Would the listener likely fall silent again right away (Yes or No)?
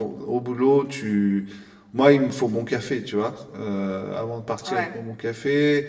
Yes